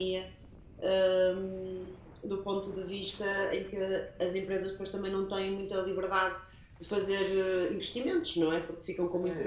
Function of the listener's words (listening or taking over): taking over